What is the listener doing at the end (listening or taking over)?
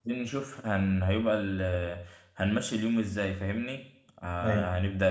listening